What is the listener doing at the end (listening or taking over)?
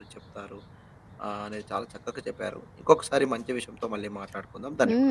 taking over